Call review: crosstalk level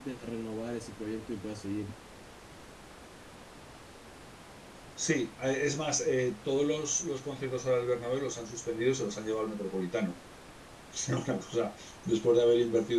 none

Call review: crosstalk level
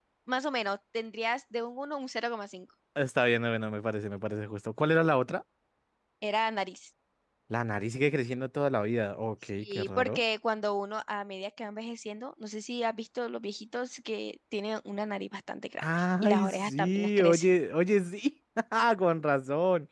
present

